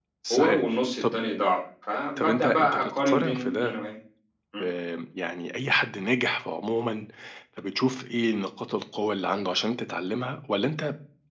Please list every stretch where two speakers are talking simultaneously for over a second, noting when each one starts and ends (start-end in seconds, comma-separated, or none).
2.2-3.8